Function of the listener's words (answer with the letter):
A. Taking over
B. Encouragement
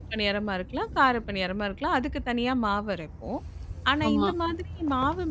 B